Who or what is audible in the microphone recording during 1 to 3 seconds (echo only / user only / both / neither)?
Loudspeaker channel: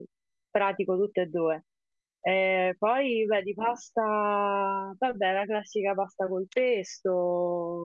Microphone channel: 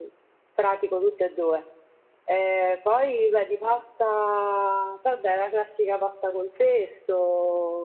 echo only